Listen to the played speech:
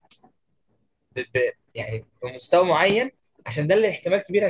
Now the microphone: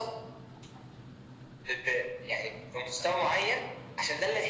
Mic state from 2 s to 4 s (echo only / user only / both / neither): echo only